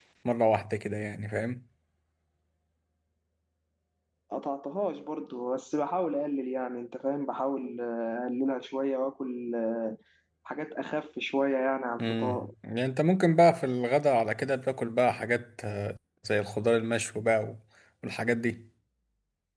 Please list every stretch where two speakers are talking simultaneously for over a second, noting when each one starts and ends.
none

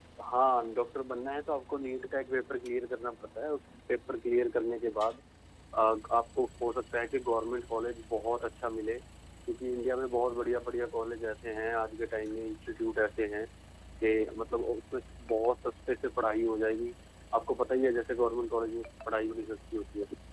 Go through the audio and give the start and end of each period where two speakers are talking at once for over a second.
none

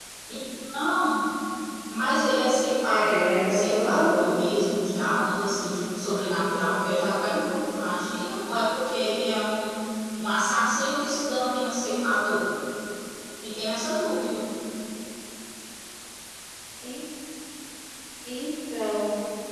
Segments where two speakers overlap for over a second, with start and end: 2.8-4.1

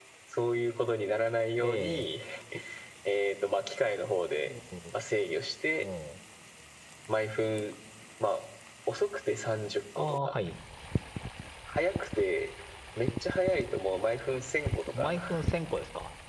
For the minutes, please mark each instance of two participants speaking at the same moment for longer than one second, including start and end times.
none

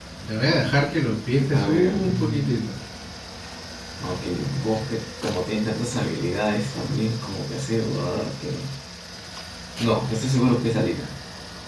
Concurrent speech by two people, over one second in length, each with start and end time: 1.5-2.7

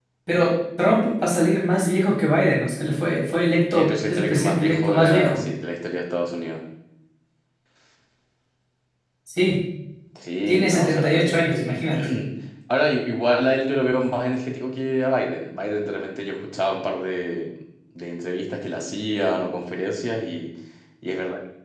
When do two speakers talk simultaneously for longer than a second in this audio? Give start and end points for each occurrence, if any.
3.7-5.4, 10.5-12.1

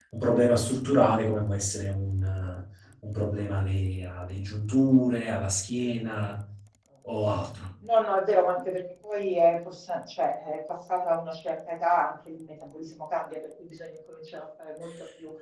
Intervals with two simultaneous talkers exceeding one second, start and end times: none

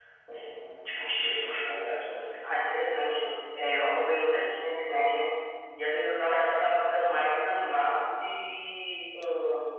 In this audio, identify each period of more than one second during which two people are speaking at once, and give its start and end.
none

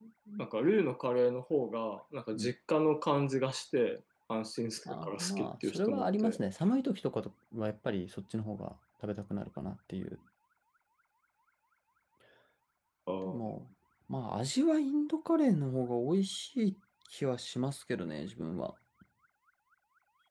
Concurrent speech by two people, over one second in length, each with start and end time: 4.8-6.4

